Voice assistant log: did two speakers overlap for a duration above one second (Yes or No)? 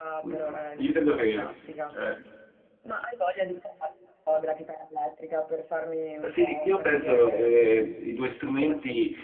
Yes